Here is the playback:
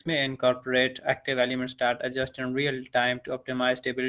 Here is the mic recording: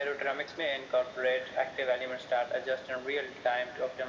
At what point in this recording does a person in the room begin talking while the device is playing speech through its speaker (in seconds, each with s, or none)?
none